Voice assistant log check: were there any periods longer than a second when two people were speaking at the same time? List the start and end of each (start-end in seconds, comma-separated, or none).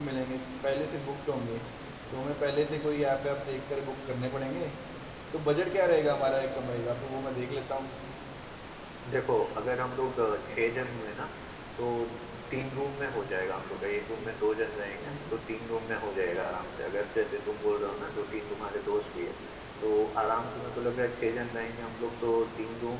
none